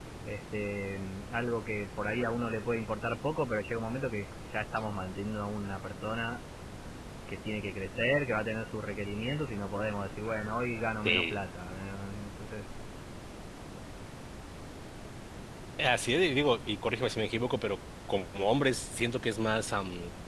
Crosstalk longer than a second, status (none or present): none